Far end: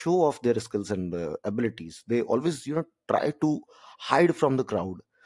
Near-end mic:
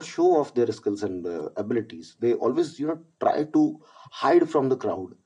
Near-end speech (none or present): none